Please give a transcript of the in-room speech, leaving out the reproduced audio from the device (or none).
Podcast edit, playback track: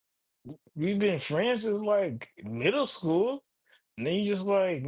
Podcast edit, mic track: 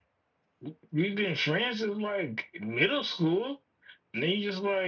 none